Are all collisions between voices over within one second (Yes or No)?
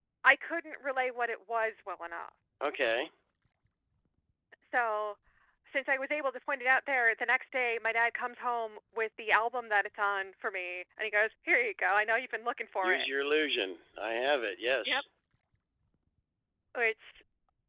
Yes